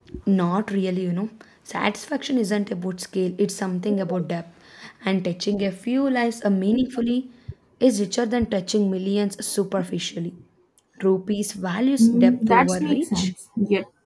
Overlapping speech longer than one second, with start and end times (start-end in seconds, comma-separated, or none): 12.0-13.3